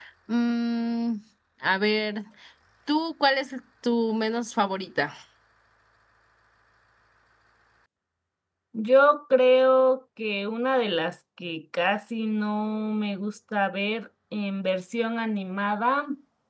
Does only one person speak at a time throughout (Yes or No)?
Yes